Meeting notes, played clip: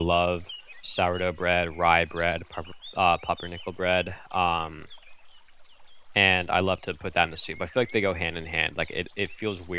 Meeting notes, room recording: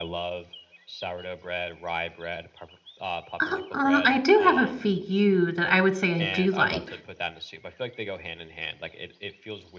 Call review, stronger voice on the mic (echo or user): user